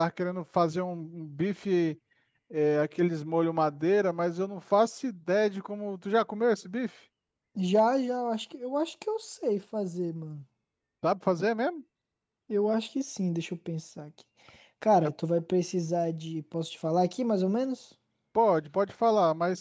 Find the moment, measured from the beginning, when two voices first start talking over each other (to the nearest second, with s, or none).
none